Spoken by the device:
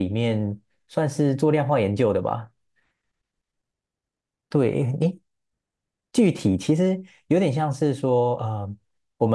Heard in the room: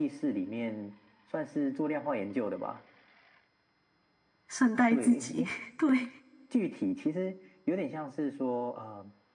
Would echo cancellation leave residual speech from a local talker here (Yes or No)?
Yes